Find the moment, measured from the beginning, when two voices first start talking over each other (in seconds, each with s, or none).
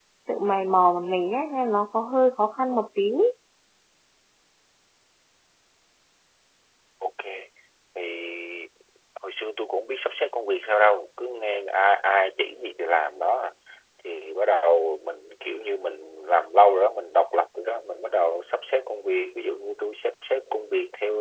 none